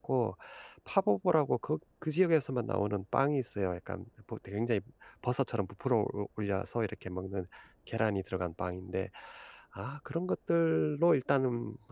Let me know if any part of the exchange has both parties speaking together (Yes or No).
No